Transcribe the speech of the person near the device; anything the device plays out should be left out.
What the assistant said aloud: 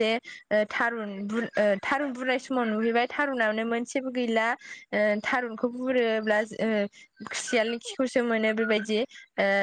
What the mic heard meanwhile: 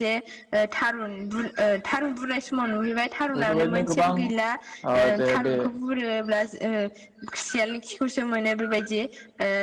बेफोरबायदिनो गोबां ओ जे बे

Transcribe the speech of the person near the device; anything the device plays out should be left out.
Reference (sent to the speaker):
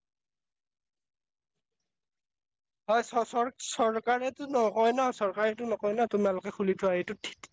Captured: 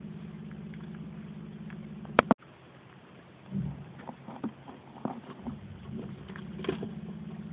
none

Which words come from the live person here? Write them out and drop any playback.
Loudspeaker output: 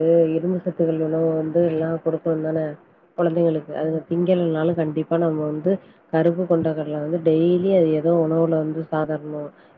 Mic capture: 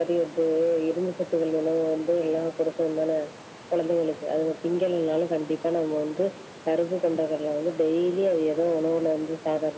none

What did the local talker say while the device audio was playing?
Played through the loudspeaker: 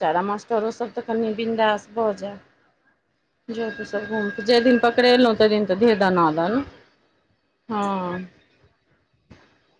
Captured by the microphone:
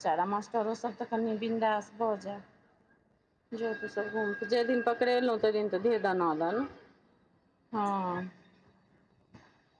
none

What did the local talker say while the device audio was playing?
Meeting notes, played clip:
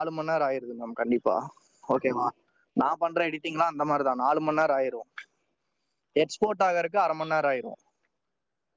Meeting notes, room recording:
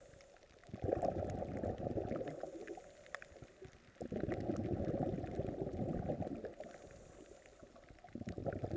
none

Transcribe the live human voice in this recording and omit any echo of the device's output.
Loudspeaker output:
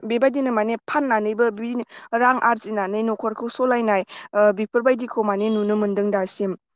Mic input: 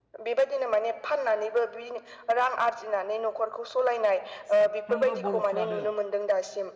साफ्रोमबो बर' फ्रानो

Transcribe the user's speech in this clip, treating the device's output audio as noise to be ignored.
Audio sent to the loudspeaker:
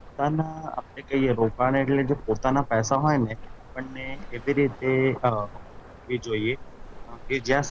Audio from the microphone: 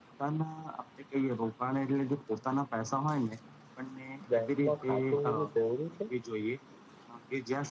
બેંકમાં ખાતું હોવું જરૂરી છે.

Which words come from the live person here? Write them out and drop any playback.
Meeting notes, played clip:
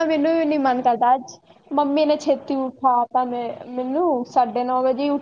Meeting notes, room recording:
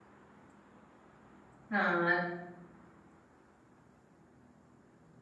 ਹਾਂ

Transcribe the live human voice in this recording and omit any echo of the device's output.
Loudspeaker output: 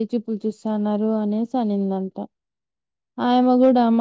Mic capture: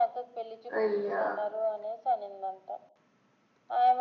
అయ్యా

